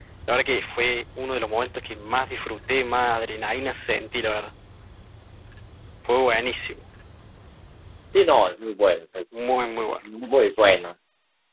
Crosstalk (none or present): none